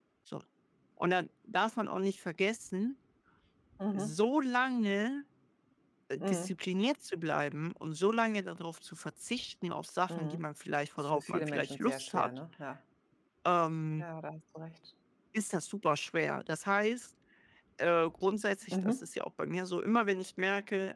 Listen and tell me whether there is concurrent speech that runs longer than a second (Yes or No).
Yes